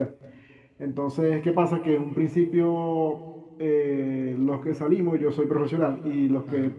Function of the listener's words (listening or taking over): listening